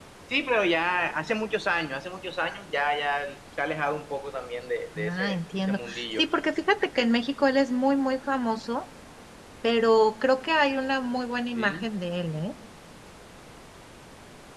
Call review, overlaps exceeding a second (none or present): present